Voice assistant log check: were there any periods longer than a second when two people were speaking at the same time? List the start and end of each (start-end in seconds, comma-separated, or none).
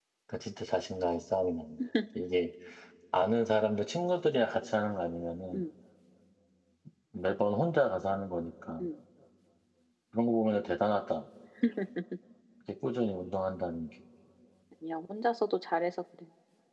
none